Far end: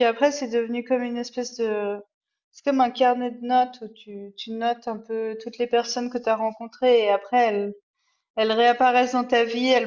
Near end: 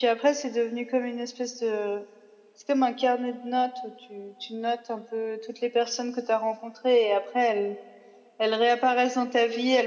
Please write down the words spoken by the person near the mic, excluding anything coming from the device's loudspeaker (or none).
none